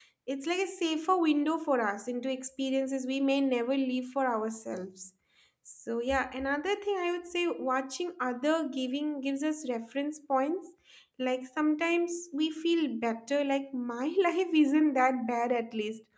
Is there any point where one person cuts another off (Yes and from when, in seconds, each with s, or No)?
No